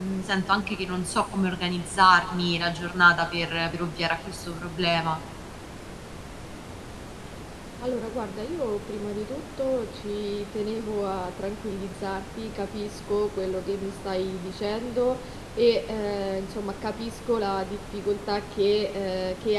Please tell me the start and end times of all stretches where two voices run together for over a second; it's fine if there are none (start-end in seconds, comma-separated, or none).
none